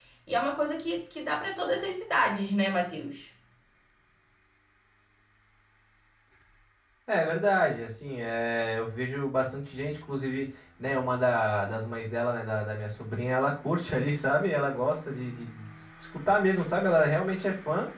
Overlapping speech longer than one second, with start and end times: none

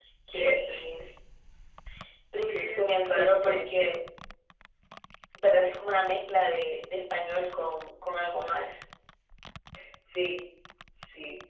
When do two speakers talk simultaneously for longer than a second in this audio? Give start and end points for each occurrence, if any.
2.4-4.0

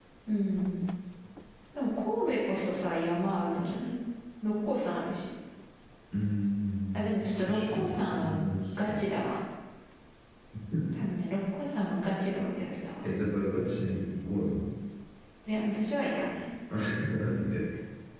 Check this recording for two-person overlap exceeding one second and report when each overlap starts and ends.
7.0-8.3

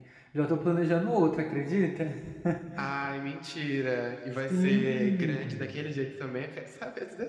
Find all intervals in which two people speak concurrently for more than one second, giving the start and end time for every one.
4.5-5.7

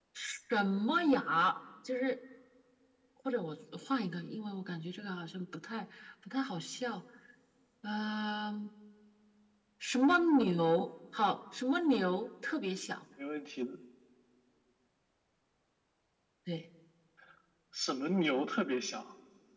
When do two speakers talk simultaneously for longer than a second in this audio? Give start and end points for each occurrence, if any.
none

